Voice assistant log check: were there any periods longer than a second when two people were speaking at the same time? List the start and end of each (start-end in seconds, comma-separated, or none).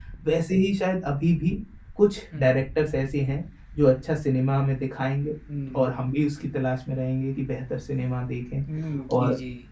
none